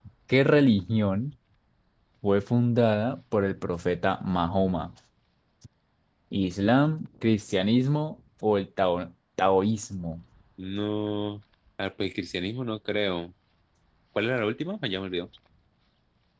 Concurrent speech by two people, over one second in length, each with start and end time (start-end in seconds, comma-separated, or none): none